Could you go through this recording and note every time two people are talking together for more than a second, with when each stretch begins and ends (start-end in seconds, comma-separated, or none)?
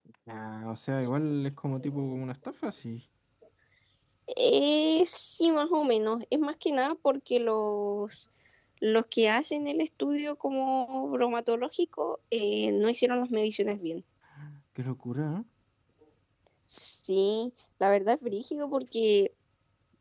none